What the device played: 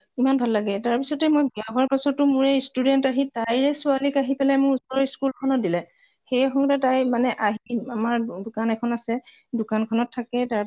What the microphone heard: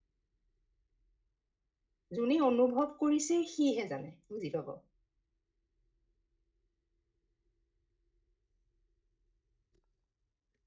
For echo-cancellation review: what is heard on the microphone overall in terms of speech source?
user only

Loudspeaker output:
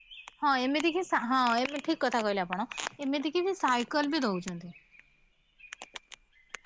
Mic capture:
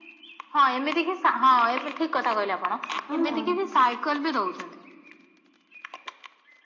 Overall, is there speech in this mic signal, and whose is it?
both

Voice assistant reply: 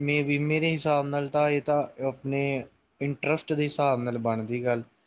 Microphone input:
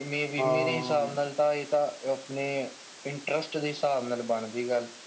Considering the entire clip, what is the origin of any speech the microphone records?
both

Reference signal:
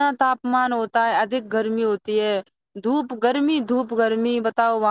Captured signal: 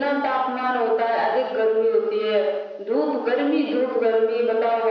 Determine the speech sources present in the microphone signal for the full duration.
echo only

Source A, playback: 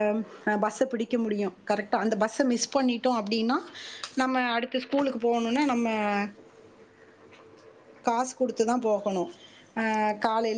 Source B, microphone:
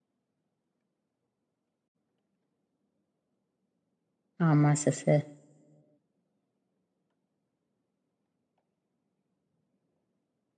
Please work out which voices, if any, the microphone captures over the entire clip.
user only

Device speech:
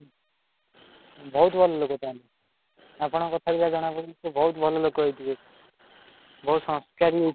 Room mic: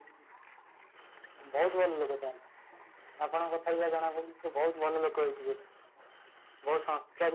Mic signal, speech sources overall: echo only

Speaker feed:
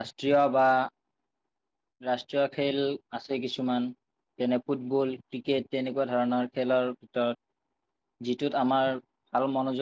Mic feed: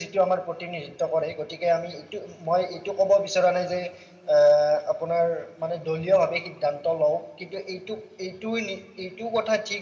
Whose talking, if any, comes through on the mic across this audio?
user only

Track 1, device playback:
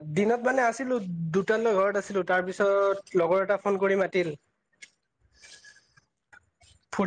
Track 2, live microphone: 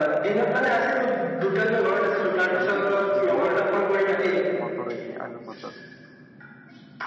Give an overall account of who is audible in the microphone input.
both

